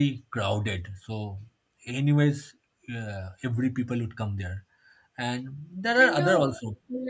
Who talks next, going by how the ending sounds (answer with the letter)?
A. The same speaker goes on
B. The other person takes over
B